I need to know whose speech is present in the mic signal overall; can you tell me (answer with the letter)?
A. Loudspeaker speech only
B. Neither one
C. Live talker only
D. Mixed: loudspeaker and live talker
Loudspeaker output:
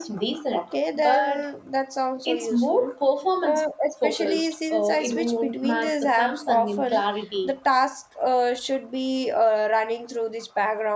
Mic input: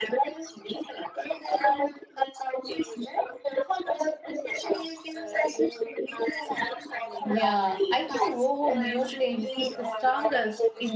D